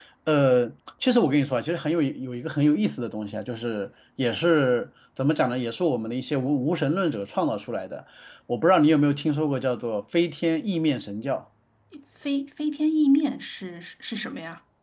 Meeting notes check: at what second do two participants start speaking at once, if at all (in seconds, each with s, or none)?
none